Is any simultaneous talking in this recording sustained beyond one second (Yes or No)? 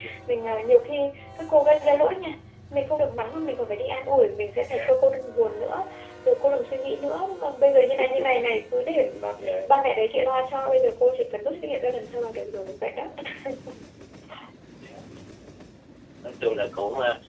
No